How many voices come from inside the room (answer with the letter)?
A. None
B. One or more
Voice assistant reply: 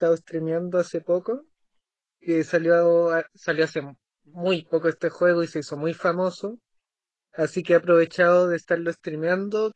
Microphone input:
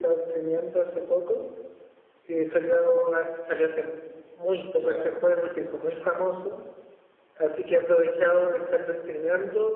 B